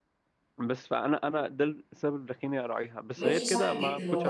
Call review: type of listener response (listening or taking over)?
taking over